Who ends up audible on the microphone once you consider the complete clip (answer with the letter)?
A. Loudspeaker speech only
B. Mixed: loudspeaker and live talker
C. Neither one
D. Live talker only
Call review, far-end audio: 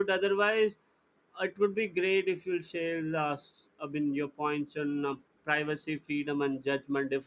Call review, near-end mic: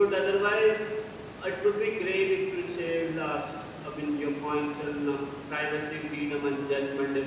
A